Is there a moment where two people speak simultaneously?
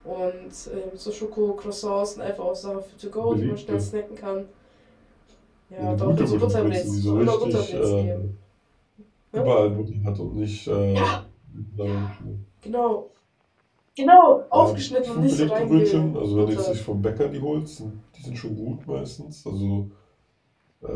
Yes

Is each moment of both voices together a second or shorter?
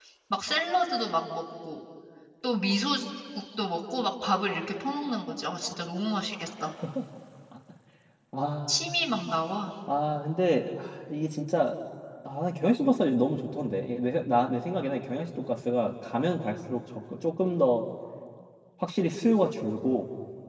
Yes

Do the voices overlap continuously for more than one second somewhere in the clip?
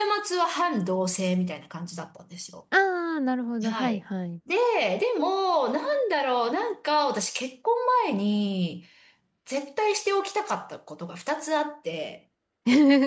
No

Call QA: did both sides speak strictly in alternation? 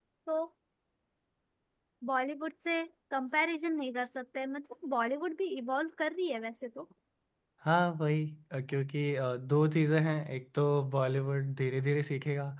Yes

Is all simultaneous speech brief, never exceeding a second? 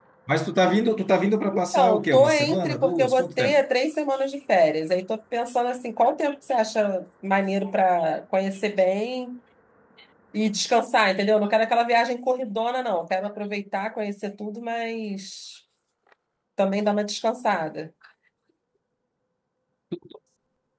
No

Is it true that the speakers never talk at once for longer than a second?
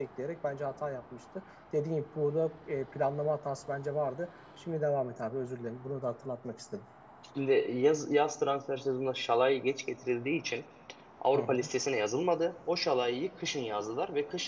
Yes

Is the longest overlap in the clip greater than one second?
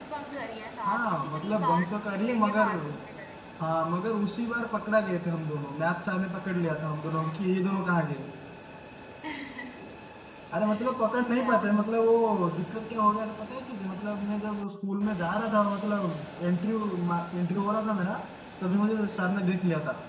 Yes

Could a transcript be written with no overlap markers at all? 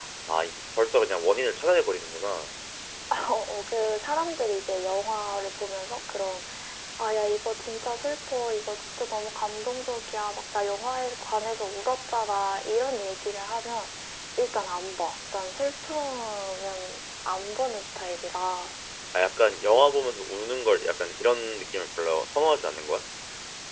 Yes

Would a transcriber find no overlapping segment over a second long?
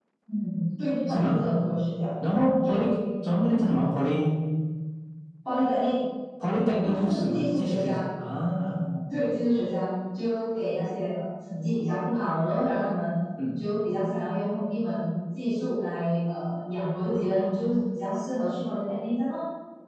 No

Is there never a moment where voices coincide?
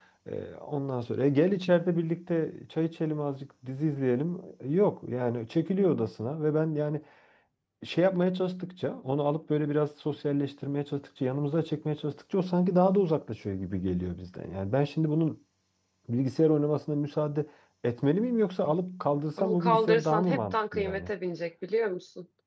No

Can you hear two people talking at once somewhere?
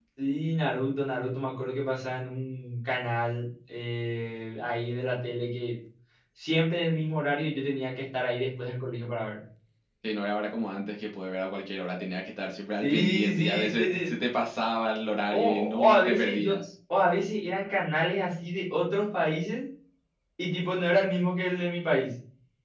Yes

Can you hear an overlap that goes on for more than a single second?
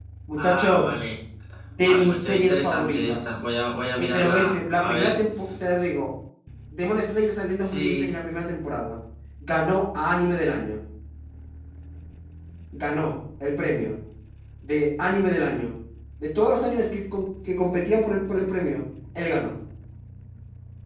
Yes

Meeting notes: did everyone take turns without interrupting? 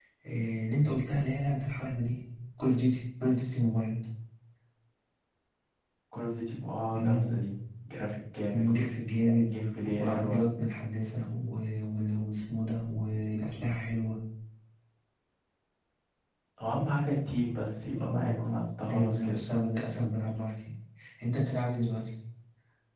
No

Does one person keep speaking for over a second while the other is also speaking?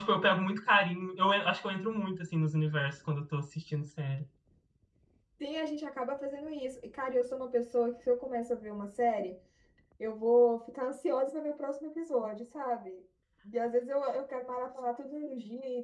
No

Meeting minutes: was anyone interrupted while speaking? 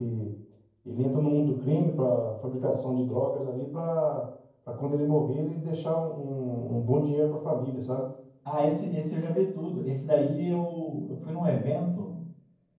No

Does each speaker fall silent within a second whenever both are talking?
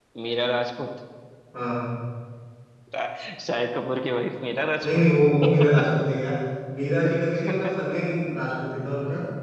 Yes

